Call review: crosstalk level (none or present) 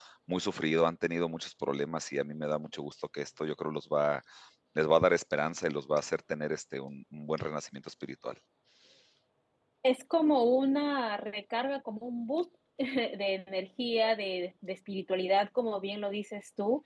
none